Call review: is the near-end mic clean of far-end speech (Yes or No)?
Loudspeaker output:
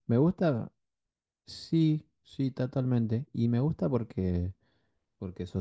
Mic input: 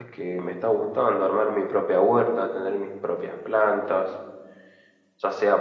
Yes